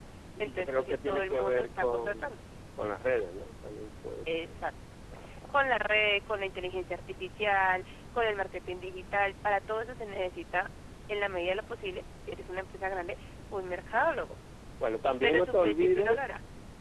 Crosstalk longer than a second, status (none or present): present